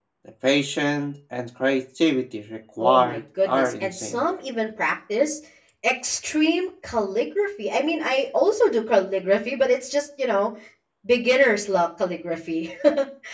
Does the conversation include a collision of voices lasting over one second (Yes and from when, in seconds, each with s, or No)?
Yes, from 2.8 s